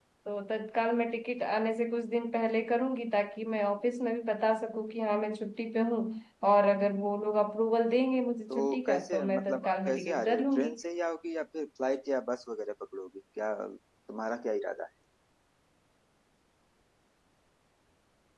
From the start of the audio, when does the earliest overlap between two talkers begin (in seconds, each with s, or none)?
8.5 s